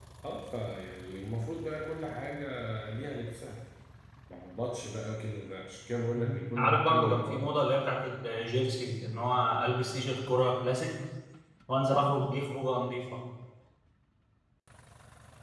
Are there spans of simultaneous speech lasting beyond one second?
Yes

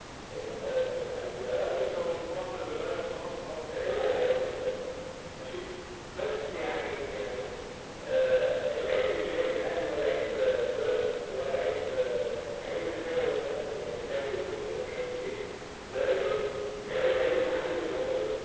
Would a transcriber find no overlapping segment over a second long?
Yes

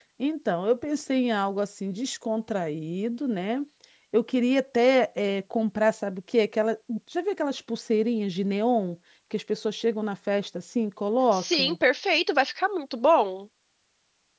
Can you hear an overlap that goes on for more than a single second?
No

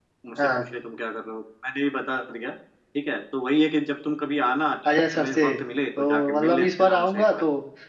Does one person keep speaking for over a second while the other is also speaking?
Yes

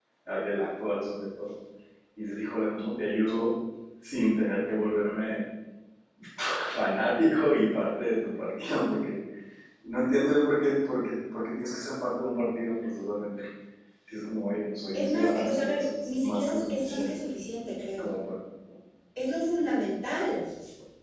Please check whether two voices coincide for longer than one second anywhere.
Yes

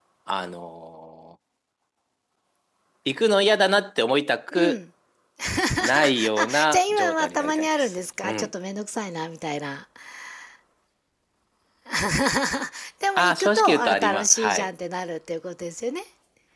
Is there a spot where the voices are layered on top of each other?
Yes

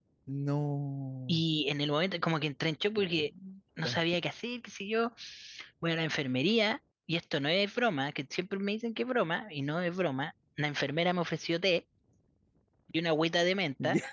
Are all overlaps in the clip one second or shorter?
Yes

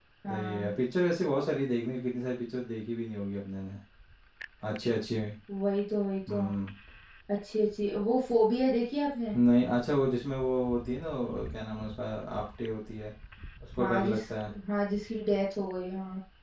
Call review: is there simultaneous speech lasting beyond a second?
No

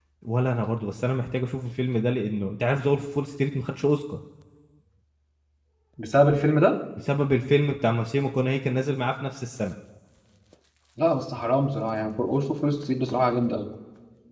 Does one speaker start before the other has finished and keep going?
No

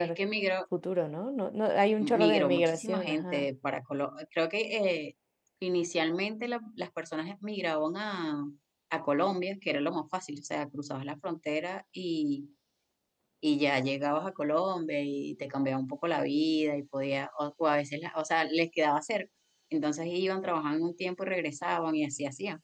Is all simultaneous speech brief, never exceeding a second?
No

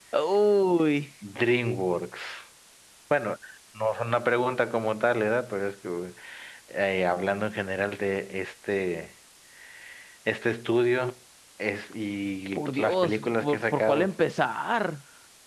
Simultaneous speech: Yes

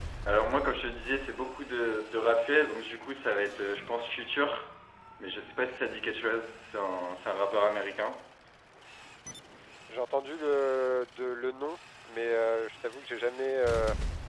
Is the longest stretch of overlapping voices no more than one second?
Yes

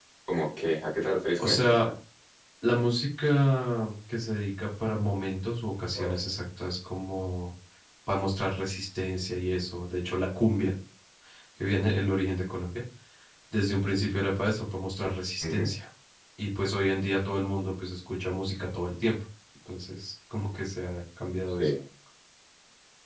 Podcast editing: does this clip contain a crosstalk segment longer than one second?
No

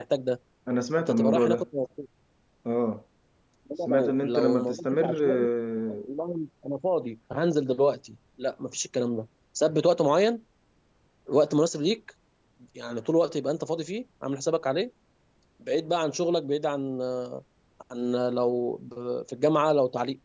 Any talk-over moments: Yes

